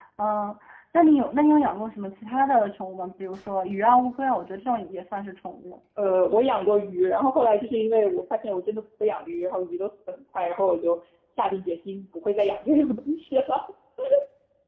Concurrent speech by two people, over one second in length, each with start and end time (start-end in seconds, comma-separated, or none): none